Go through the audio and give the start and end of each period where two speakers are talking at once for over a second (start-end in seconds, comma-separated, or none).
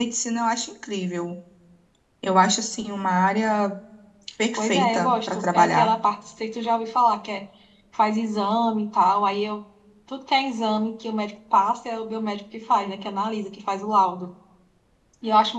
4.5-5.9